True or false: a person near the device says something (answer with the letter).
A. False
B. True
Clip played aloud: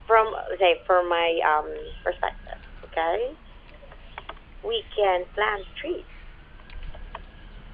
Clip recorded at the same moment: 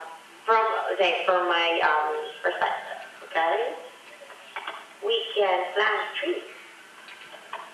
A